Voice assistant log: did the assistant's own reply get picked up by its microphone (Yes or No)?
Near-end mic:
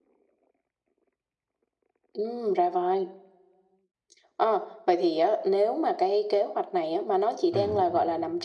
Yes